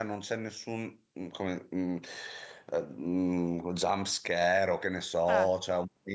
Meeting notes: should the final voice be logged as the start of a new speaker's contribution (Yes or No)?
No